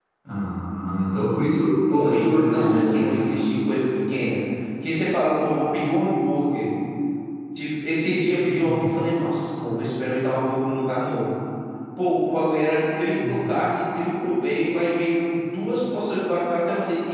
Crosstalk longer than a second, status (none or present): present